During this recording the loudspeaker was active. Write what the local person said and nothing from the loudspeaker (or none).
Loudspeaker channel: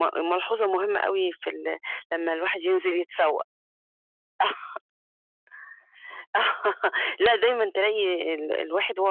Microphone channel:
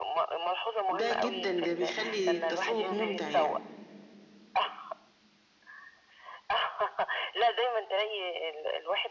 ده جدًا ده بيخلّي التسوق ممتع يعني.